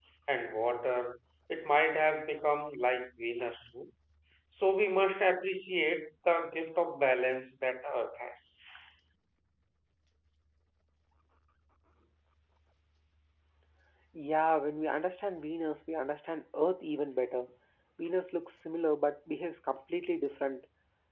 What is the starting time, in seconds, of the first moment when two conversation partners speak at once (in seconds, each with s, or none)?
none